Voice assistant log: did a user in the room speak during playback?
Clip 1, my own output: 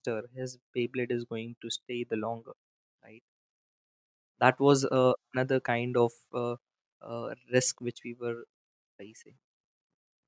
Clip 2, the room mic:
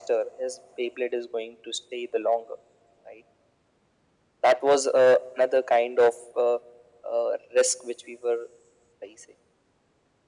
No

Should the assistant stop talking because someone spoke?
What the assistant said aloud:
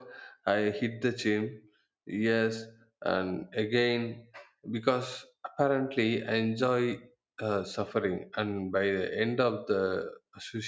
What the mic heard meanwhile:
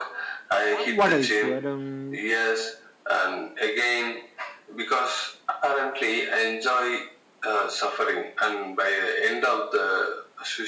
Yes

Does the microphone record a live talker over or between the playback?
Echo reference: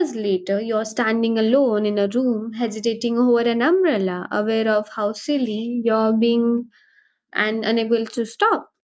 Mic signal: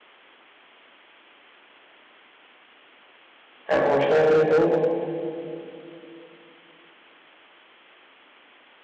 Yes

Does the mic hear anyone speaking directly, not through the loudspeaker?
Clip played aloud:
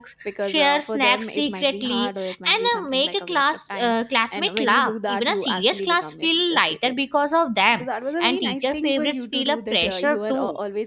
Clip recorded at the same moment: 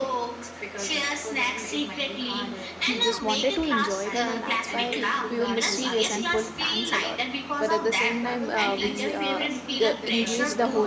Yes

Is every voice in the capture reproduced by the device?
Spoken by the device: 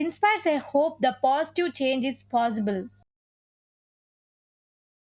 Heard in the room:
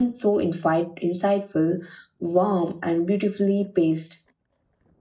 No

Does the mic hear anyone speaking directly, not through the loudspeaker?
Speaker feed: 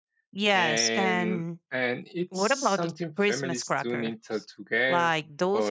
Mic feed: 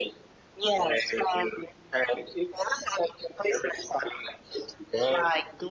No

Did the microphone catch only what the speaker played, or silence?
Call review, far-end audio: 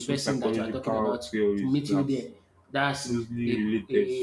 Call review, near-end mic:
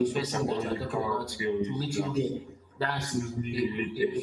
Yes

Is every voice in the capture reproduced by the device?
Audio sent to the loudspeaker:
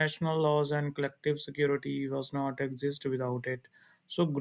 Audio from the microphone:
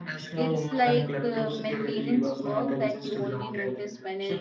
No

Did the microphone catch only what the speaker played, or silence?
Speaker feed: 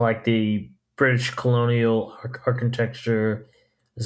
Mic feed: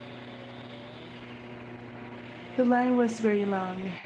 No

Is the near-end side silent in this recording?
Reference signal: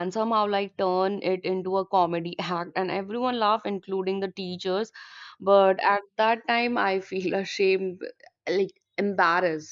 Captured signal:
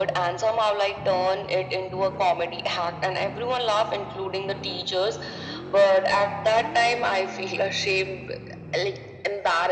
Yes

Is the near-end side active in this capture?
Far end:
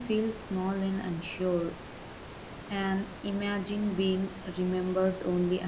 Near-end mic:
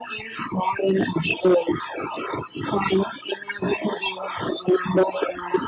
No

